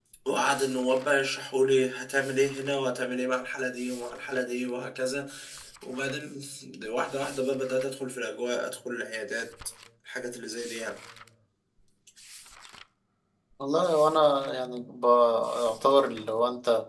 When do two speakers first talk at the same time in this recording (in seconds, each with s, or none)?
none